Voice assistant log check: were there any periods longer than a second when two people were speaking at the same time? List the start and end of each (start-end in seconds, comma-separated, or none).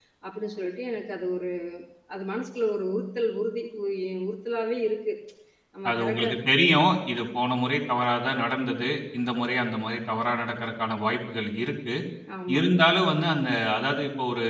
none